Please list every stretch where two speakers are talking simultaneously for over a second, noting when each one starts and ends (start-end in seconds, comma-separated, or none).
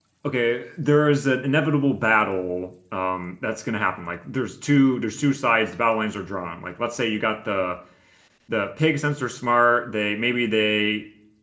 none